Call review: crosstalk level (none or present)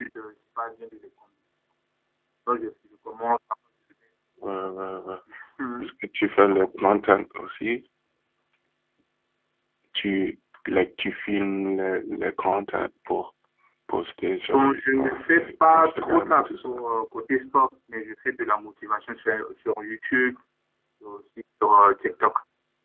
present